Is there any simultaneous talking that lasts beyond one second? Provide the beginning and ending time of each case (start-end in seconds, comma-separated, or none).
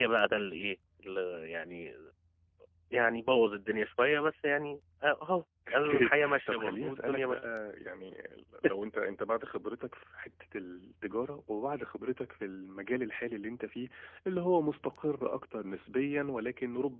5.7-7.4